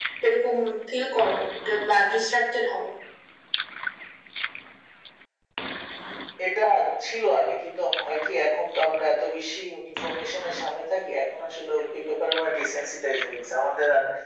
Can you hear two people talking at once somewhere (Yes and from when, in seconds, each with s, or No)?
No